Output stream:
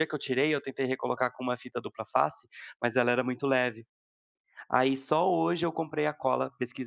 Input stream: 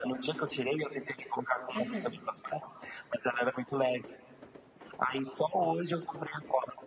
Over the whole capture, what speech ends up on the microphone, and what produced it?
both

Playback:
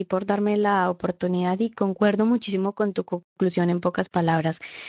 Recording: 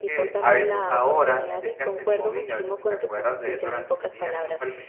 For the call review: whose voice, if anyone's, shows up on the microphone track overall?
both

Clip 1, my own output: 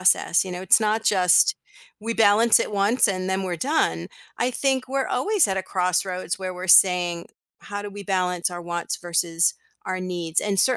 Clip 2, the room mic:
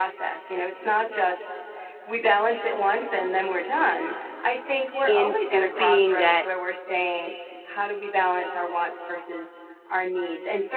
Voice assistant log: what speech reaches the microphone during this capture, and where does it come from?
both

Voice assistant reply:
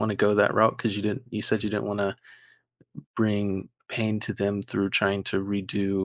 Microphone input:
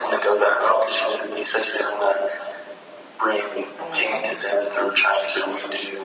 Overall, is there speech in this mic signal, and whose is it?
both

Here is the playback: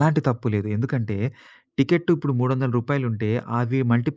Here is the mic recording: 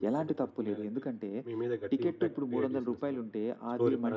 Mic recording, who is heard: both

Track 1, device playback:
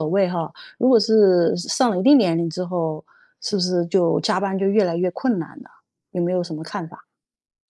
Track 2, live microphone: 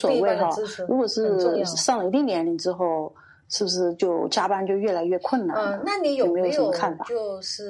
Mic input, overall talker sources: both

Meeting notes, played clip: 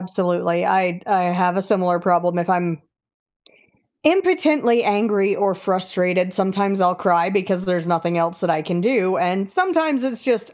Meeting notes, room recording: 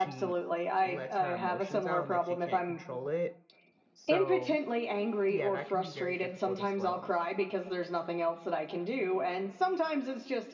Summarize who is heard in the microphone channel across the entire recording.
both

